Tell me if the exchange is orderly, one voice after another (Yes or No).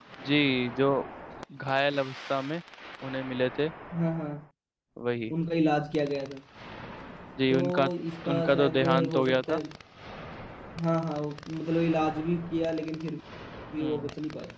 No